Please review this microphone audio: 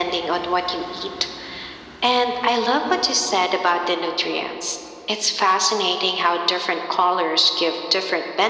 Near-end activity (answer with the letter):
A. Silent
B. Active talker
A